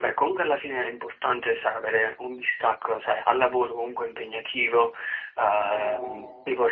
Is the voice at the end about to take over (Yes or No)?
No